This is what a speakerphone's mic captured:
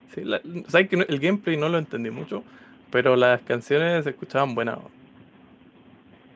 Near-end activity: present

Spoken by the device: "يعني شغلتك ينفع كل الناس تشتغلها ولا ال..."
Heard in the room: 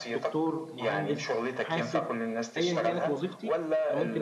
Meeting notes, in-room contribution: present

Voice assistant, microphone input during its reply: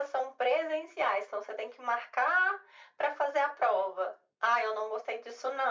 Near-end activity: none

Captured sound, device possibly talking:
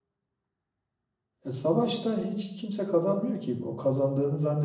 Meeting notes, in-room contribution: present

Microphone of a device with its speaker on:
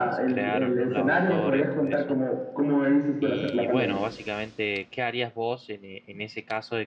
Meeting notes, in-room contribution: present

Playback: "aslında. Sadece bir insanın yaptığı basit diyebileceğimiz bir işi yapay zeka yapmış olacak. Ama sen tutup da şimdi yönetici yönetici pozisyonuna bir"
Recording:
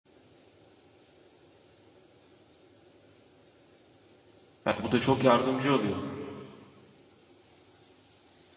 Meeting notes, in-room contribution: present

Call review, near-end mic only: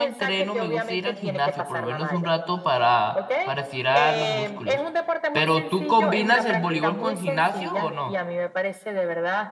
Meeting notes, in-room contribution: present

